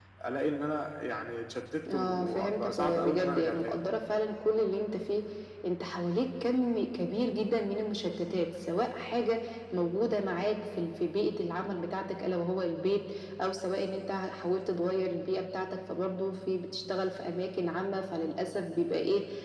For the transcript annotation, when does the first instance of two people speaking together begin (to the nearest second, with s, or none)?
2 s